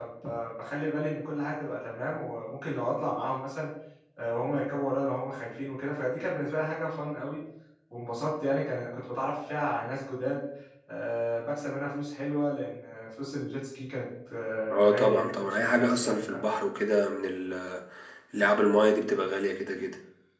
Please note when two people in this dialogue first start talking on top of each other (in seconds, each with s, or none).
14.7 s